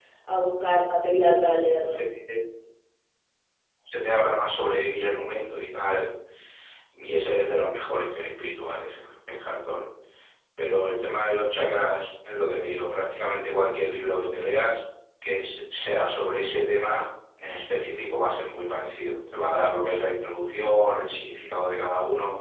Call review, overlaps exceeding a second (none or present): none